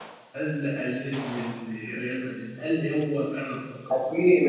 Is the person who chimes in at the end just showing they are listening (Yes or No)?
No